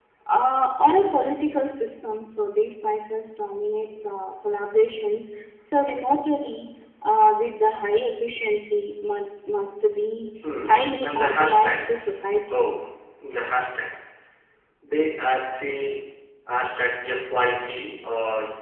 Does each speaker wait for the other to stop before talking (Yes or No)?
No